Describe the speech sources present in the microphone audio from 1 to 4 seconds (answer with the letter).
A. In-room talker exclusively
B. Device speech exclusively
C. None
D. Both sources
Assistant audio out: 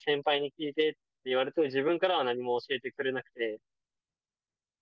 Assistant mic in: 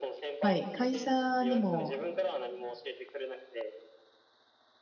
D